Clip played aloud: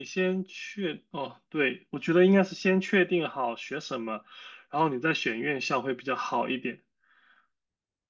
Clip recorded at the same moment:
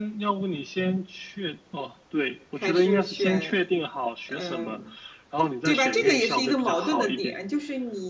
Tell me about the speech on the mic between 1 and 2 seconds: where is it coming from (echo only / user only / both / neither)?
echo only